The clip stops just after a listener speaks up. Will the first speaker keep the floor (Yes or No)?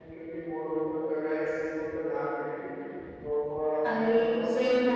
No